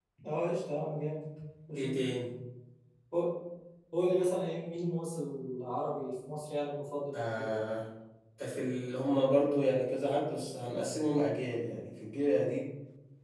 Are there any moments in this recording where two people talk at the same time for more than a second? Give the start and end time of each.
none

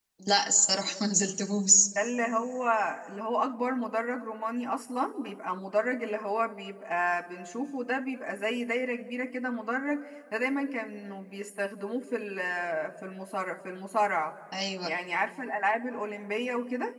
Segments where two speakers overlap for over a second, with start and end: none

